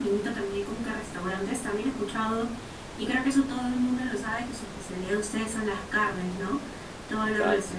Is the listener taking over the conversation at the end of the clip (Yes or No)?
No